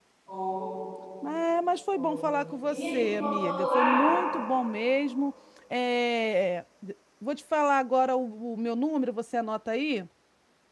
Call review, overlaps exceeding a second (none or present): present